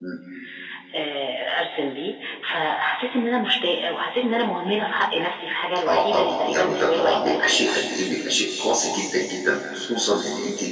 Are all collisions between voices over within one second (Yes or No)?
No